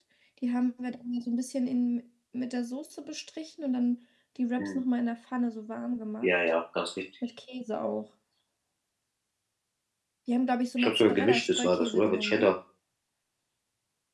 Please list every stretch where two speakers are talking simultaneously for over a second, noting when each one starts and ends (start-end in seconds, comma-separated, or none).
10.8-12.5